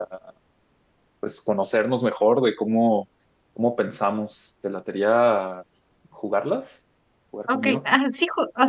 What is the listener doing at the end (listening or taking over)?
taking over